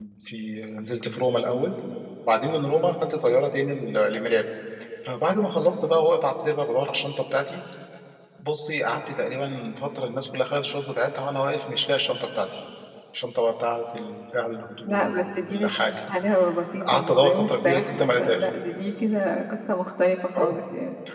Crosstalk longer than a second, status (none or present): present